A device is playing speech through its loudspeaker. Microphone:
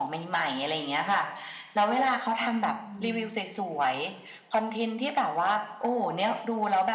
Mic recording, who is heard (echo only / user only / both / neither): both